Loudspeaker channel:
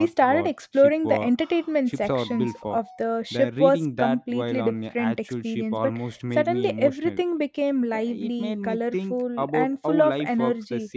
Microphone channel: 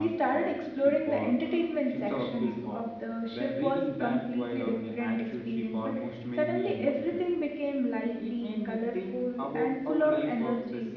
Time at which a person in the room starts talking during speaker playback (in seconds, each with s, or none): none